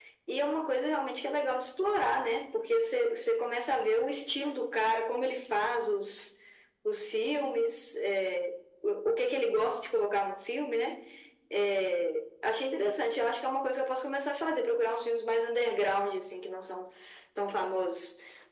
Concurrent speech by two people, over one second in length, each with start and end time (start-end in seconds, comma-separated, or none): none